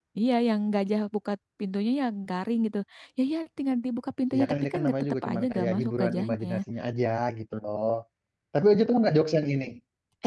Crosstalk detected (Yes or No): Yes